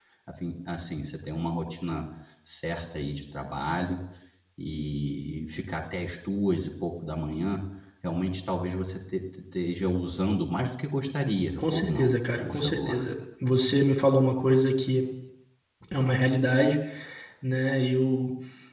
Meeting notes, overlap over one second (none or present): present